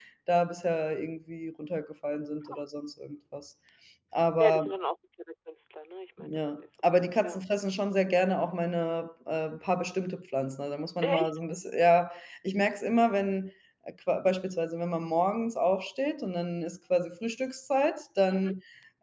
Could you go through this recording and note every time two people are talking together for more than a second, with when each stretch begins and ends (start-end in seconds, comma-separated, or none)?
6.2-7.4